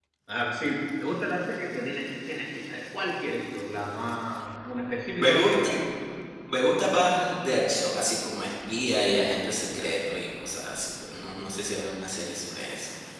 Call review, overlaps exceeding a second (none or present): none